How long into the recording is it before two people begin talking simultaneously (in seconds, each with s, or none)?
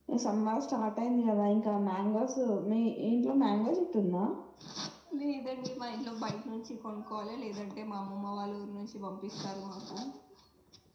none